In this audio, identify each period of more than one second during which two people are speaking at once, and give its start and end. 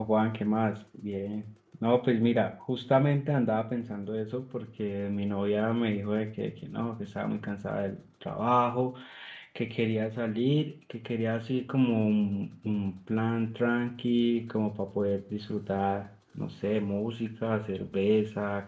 none

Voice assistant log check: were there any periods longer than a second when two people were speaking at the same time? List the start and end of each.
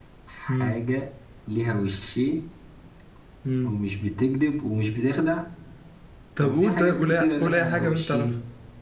6.4-8.3

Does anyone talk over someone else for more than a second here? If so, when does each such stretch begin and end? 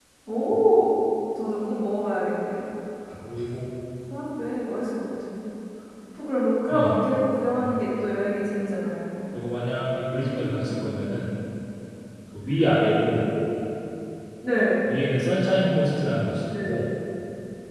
none

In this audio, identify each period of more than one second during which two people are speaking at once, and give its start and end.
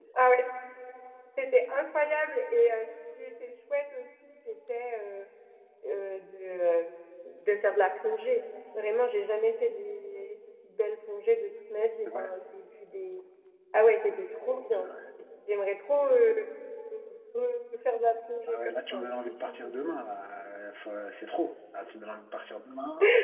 18.5-19.7

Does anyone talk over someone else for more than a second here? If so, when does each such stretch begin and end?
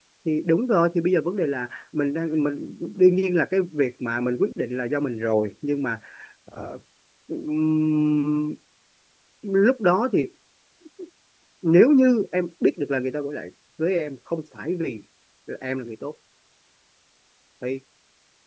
none

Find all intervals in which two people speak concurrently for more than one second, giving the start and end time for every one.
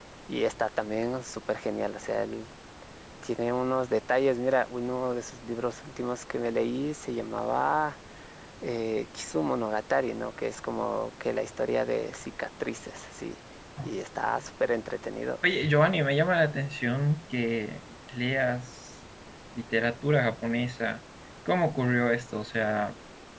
none

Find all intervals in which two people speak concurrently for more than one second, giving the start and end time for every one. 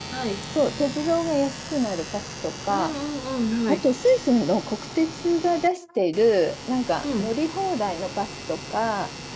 none

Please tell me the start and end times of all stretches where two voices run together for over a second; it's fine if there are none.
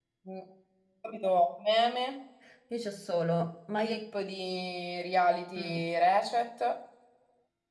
none

